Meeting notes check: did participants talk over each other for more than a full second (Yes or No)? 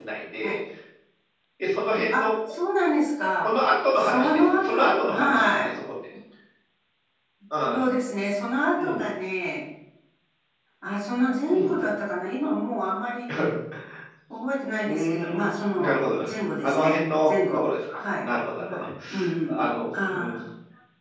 Yes